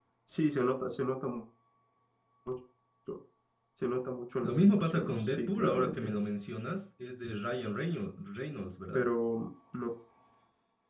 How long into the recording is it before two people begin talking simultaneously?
4.4 s

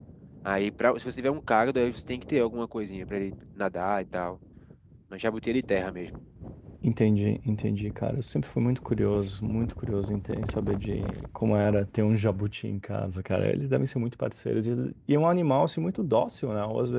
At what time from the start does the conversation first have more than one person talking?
none

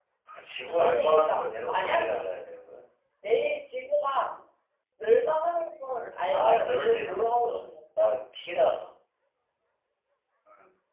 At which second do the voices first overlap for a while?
0.6 s

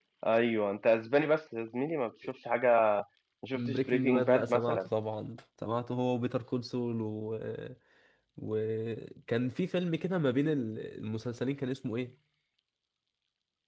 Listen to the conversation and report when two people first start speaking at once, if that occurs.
3.5 s

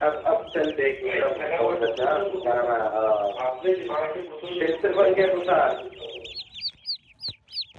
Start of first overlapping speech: 1.0 s

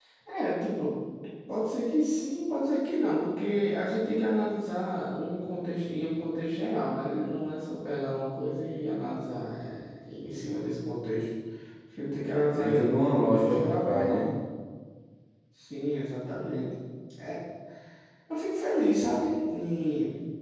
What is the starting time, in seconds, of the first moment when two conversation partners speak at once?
12.6 s

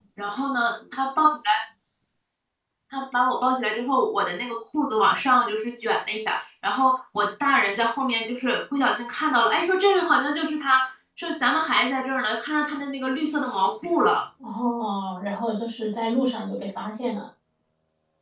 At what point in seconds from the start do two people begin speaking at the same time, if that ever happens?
none

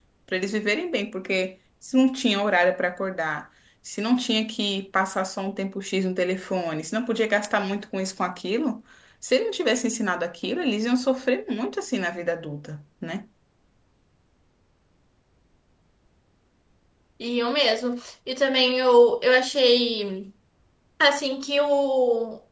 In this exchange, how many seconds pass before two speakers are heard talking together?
none

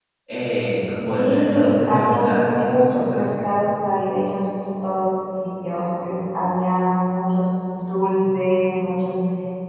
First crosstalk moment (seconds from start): 0.9 s

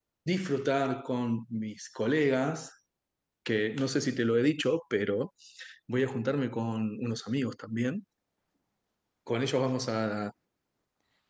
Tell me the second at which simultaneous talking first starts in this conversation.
none

